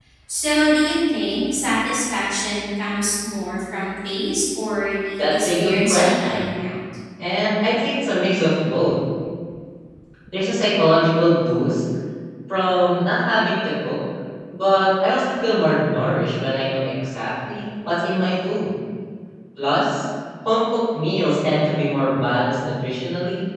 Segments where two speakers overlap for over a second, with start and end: 5.2-6.6

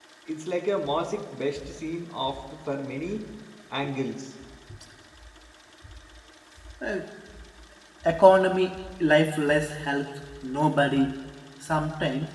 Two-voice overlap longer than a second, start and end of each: none

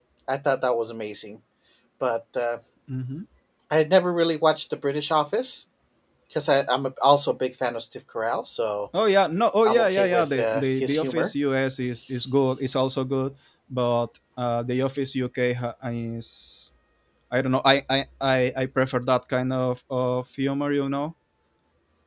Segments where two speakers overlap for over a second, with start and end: 9.7-11.3

